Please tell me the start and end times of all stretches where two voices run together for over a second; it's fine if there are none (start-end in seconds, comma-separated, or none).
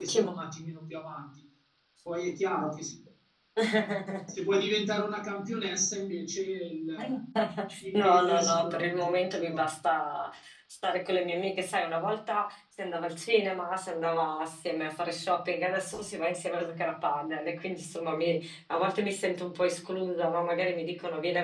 7.9-9.7